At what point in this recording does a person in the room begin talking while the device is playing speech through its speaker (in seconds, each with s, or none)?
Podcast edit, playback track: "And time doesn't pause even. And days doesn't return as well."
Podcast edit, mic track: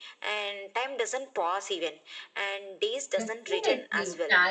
3.1 s